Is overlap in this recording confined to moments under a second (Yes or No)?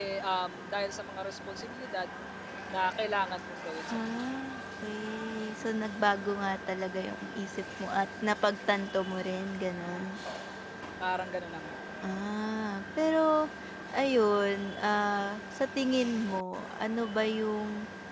Yes